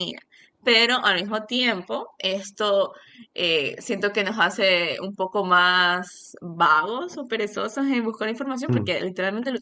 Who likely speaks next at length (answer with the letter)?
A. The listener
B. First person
B